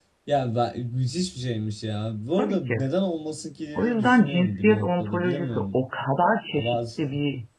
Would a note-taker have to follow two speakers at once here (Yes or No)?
Yes